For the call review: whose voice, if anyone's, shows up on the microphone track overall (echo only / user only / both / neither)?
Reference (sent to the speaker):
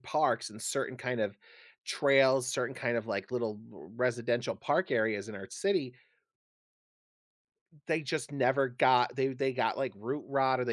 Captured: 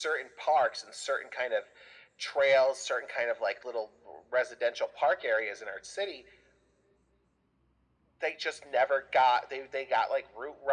echo only